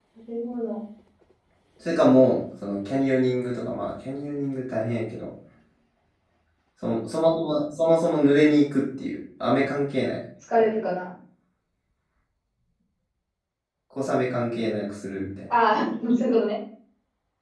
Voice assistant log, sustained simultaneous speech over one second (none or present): none